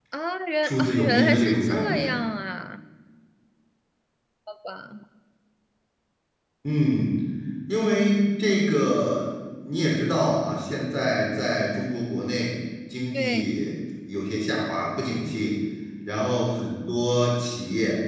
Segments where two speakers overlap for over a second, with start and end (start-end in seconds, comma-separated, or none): 0.6-2.1